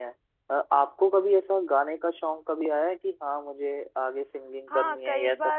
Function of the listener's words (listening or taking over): taking over